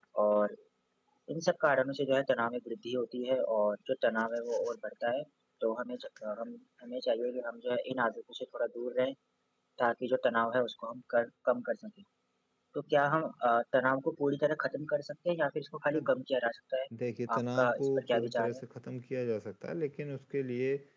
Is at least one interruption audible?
Yes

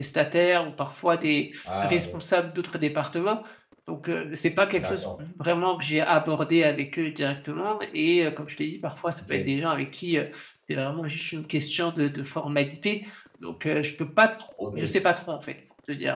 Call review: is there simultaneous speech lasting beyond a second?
No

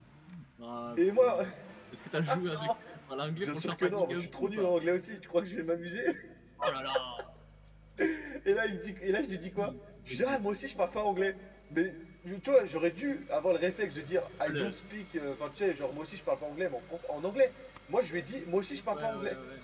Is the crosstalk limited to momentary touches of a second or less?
No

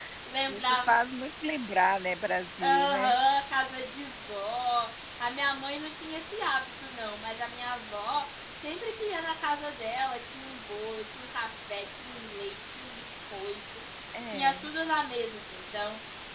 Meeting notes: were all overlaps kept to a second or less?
Yes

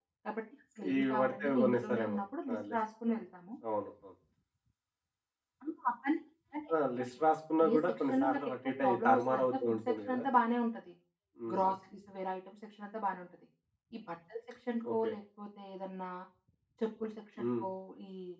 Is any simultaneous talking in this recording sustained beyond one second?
Yes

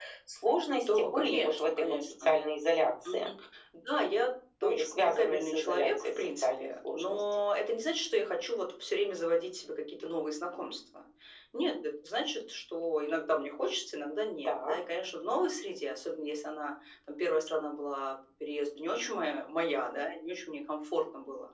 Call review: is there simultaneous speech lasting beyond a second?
Yes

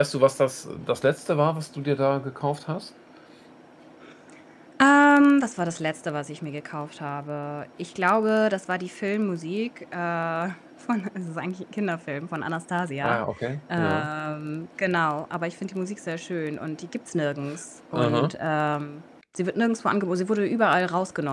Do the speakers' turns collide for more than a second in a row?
No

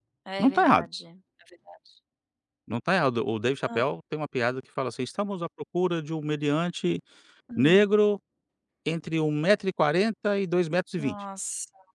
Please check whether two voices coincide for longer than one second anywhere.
No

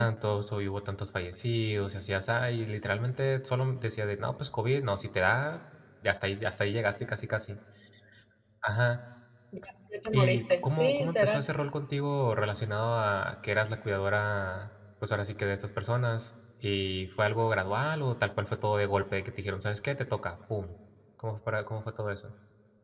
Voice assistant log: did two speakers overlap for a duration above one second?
Yes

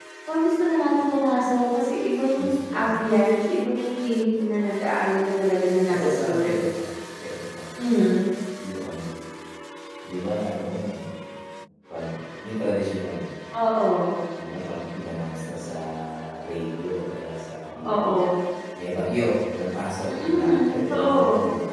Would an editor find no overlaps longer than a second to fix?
No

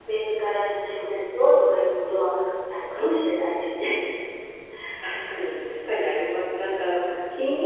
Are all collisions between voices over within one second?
Yes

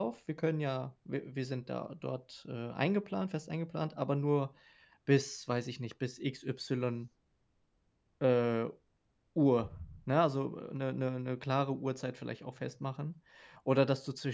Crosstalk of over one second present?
No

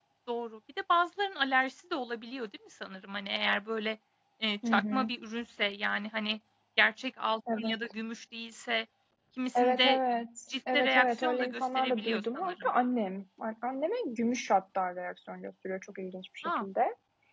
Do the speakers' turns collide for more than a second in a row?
Yes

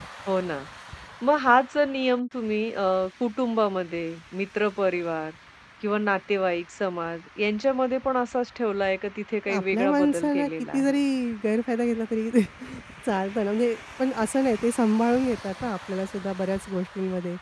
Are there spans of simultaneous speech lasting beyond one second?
Yes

